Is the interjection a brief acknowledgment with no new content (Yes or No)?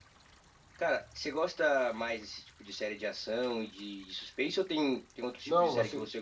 No